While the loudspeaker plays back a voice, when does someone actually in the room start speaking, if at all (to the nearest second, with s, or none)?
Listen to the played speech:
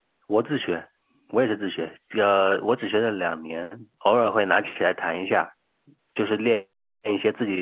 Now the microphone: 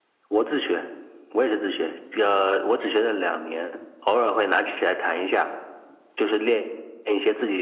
none